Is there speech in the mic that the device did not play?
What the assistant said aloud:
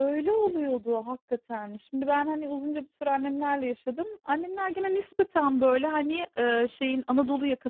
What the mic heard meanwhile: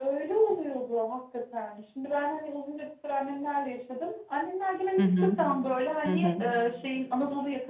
Yes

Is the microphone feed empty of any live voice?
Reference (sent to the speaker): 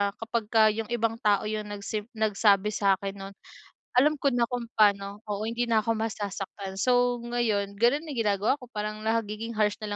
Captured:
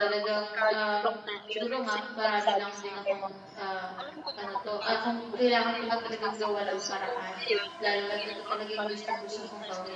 No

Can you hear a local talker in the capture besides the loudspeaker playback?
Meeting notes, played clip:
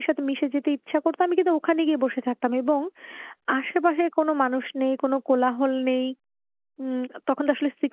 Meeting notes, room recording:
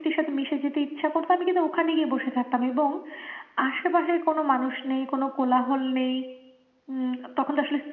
No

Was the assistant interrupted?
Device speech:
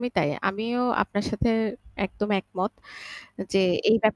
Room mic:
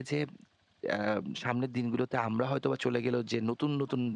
Yes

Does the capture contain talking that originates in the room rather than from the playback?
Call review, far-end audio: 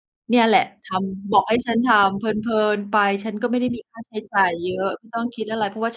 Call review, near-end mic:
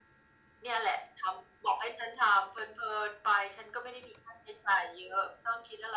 No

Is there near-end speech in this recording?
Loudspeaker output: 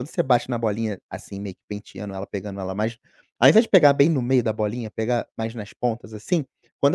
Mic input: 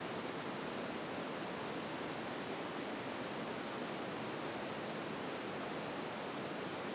No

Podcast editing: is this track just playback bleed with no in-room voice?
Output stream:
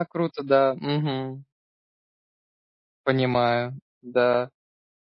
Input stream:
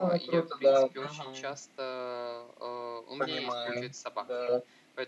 No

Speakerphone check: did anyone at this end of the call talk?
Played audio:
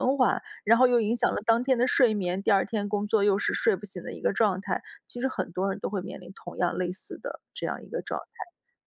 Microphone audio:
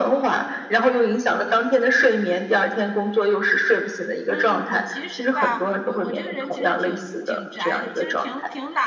Yes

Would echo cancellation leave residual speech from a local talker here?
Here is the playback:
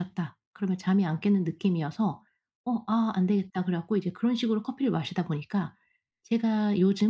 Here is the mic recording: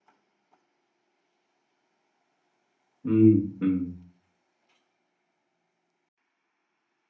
Yes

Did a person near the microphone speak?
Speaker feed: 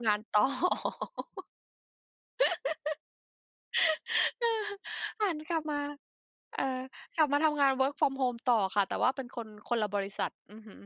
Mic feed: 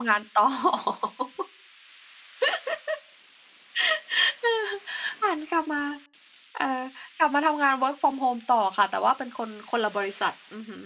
No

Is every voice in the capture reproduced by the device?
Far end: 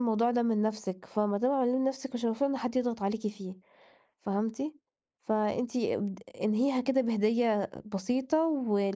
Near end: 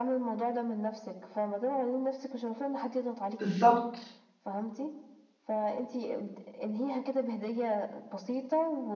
No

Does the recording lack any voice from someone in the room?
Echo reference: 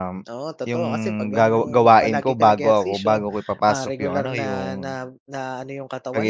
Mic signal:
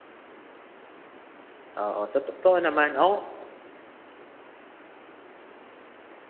No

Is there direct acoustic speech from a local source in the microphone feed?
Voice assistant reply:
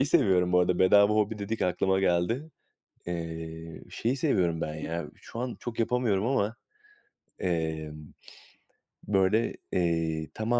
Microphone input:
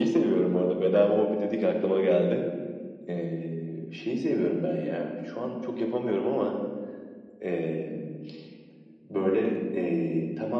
No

